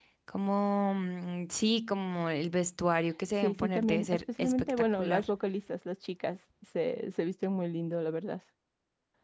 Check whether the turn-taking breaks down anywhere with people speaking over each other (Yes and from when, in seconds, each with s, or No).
Yes, from 3.4 s